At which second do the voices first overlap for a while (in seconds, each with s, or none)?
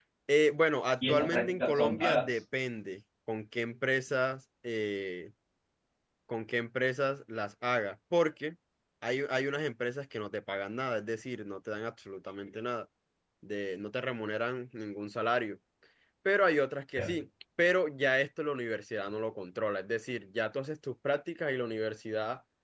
1.1 s